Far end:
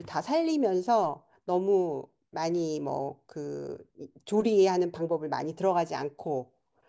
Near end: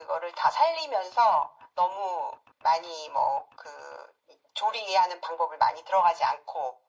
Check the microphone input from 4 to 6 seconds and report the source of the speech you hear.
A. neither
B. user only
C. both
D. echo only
D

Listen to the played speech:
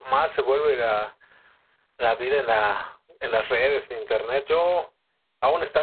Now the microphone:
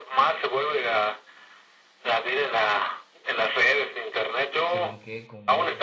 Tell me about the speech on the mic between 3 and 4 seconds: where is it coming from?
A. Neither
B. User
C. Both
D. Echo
D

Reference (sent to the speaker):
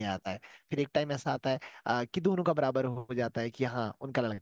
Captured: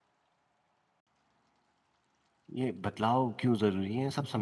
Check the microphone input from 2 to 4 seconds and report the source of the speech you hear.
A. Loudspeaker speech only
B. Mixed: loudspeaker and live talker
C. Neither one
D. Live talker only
D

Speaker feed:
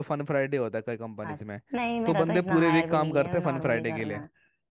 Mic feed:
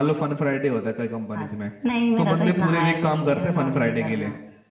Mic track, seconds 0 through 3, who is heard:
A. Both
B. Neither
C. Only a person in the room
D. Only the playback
D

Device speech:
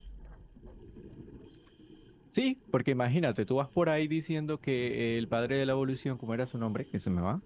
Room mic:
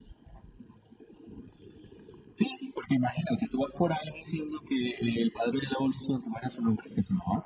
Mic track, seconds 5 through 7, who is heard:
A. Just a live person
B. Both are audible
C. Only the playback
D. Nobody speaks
C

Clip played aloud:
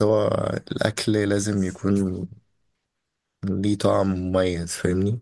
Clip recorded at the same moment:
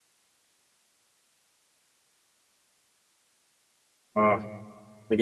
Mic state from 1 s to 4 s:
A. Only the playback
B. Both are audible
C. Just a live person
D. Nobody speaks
D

